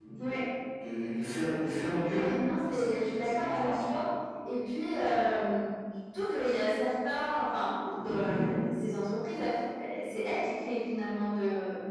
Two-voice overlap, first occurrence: 2.6 s

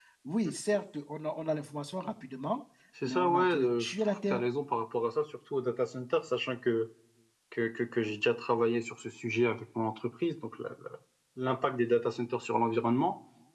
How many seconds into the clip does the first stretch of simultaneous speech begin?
3.1 s

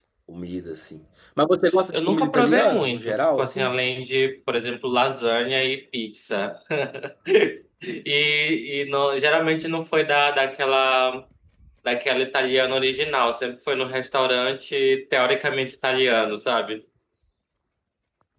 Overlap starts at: 1.7 s

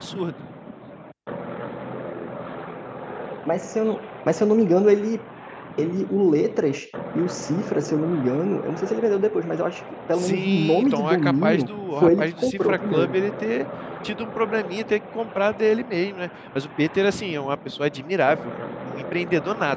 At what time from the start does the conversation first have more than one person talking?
10.2 s

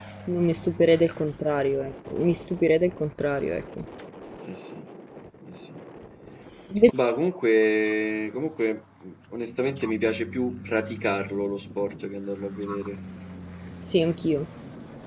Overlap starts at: none

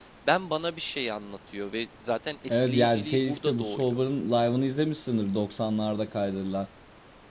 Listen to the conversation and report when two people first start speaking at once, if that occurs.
2.5 s

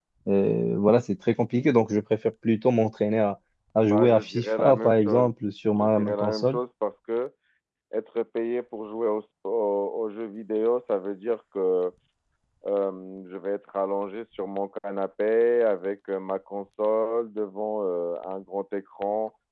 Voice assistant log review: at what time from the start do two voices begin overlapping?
3.9 s

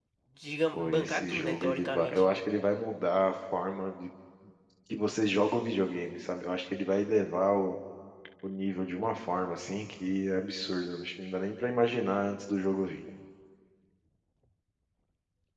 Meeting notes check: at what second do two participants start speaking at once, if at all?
0.7 s

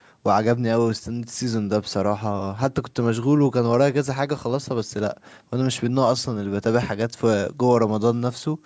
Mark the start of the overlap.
none

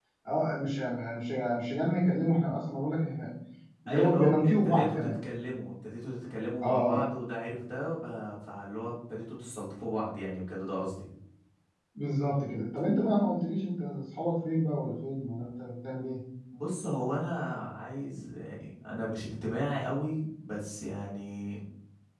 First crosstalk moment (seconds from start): 3.9 s

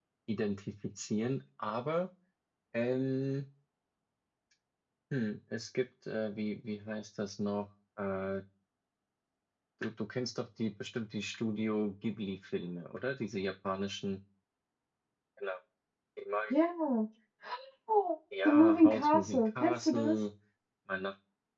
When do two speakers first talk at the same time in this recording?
18.4 s

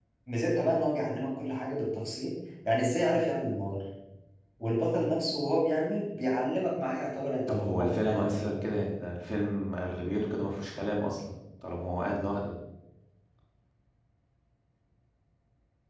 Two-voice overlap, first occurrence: 7.5 s

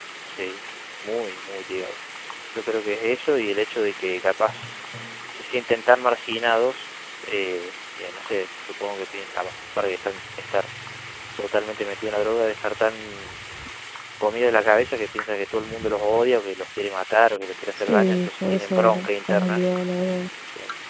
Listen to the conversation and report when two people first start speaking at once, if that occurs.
17.9 s

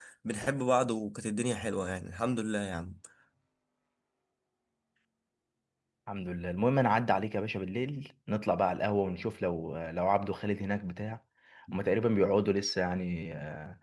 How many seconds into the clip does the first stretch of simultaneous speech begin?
none

